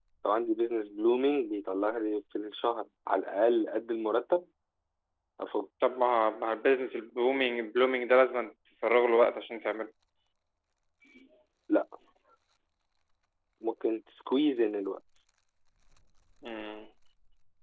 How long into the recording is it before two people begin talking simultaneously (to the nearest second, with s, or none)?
none